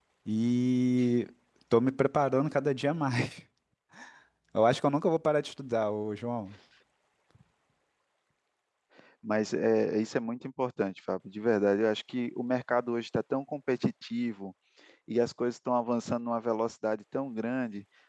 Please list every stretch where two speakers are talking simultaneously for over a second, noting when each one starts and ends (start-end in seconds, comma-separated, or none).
none